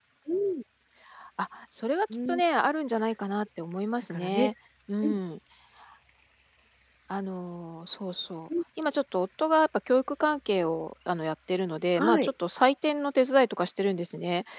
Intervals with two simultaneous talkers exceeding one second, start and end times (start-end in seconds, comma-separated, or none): none